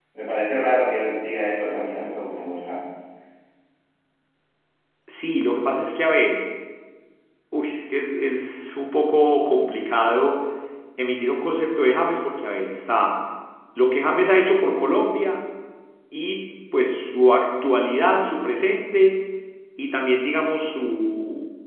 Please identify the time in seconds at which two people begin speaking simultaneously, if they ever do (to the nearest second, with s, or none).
none